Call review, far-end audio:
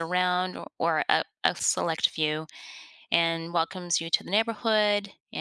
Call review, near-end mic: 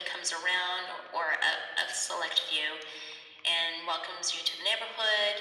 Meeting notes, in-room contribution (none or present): none